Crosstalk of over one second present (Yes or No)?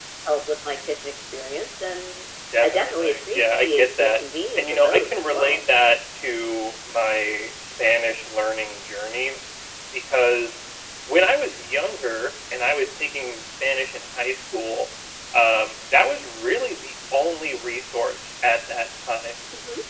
Yes